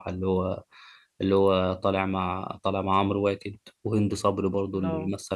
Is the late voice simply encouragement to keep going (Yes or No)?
Yes